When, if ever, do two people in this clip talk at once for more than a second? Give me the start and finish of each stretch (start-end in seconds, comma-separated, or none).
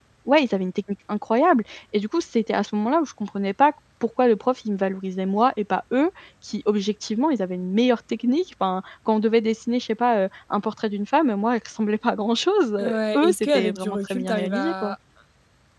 13.2-14.9